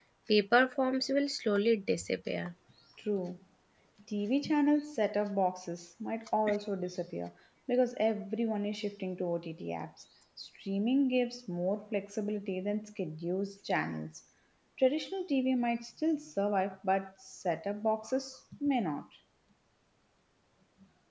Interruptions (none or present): none